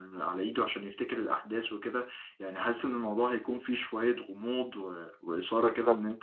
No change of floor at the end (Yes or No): Yes